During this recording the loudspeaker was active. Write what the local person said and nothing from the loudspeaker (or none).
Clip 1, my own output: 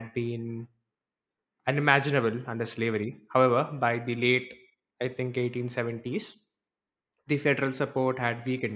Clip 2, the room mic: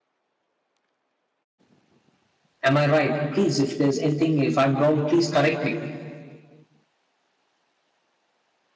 am i right please if there's anything if i'm wrong please correct me